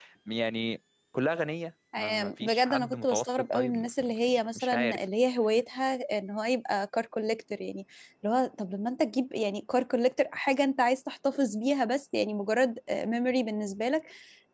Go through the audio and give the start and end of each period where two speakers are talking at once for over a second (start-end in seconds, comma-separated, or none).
2.0-5.0